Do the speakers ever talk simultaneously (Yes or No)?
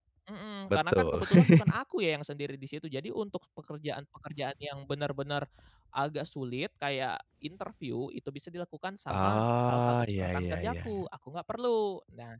Yes